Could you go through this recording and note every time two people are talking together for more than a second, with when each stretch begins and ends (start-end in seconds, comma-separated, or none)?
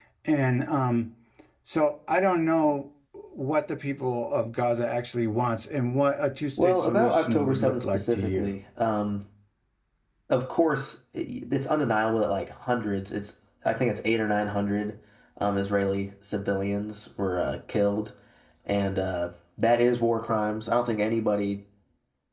6.6-8.5